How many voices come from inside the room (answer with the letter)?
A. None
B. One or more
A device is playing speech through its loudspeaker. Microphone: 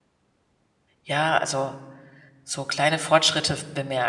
B